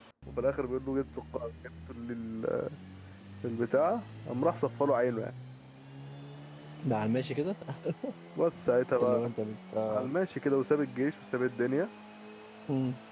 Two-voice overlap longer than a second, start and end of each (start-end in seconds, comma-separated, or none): none